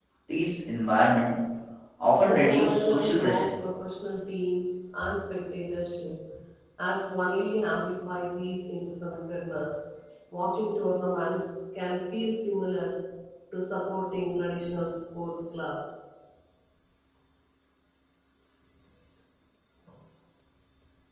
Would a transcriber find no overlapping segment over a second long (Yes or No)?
No